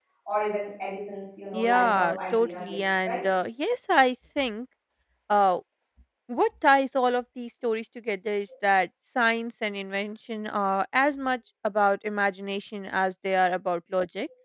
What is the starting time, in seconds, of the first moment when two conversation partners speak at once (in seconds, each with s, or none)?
1.5 s